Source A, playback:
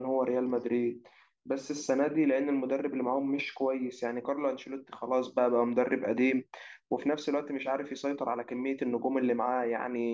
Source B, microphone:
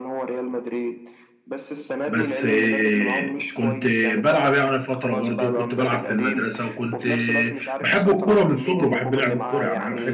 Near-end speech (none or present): present